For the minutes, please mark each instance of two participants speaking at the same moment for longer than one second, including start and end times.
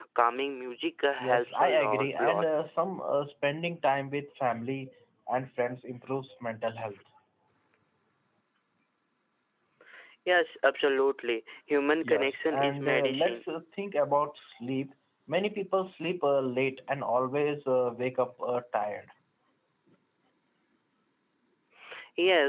1.2-2.4, 12.0-13.4

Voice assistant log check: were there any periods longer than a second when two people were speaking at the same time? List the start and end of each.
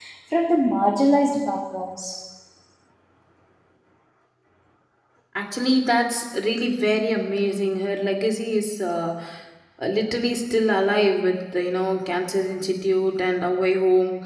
none

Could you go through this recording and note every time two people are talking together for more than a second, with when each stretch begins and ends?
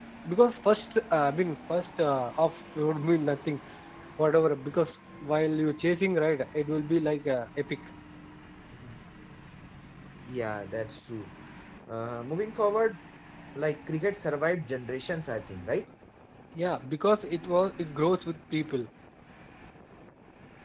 none

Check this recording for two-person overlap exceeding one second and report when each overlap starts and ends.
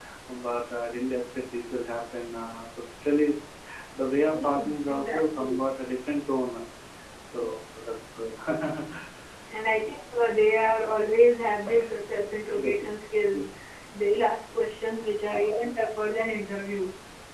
4.3-5.6

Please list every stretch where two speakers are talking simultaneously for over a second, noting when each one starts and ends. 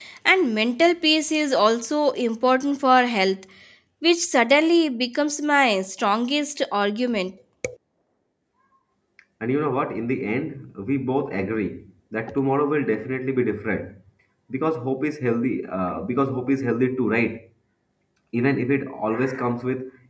none

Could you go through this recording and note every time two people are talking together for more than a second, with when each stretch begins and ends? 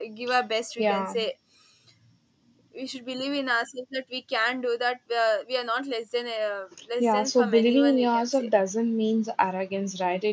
7.0-8.5

